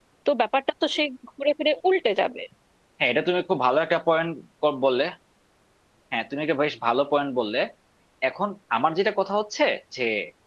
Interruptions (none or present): none